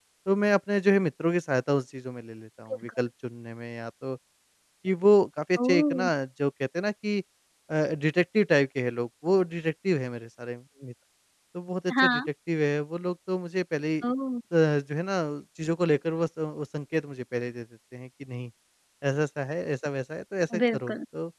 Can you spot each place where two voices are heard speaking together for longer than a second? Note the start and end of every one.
none

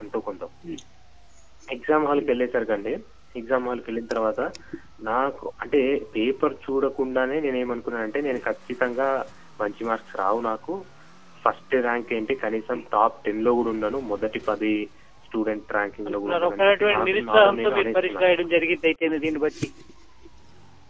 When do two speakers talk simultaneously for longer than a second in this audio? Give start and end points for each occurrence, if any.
16.1-18.4

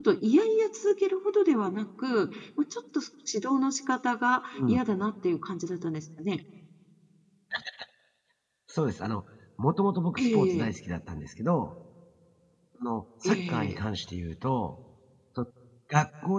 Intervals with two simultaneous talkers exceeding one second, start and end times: none

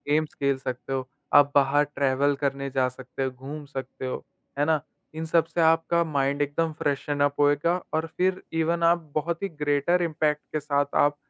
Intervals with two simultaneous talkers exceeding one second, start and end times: none

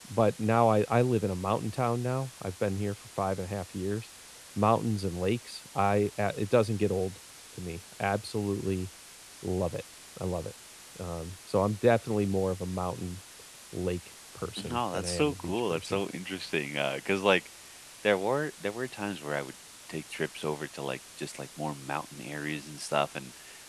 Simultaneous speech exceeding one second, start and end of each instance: 14.6-16.0

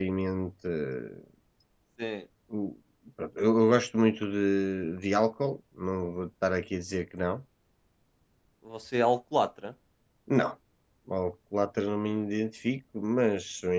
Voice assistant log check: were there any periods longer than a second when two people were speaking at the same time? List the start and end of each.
none

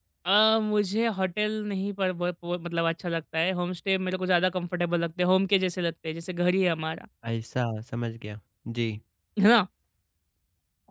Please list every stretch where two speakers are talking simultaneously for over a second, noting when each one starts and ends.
none

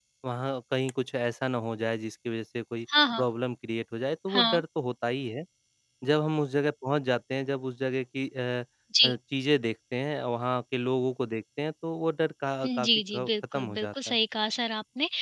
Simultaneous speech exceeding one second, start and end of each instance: 12.7-14.2

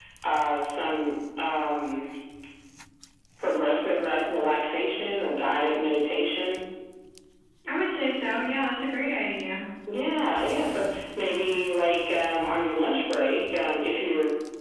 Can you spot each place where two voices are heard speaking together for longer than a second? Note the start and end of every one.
none

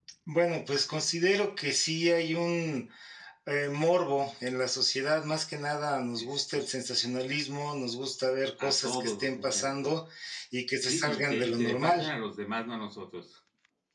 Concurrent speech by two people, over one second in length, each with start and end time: 8.6-9.9, 10.8-12.1

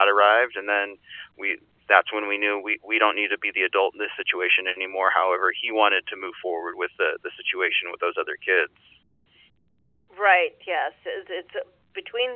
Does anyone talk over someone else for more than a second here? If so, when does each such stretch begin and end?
none

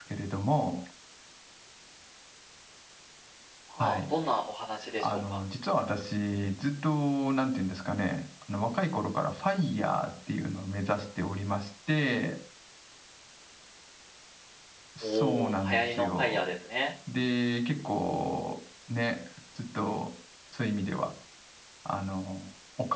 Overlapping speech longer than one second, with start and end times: 15.0-16.4

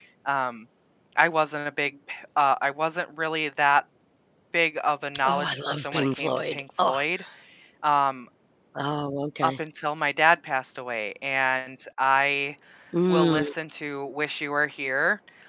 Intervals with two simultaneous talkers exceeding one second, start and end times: 5.2-7.0

